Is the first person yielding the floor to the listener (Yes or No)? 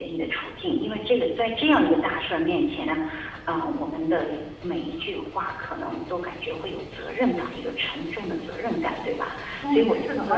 Yes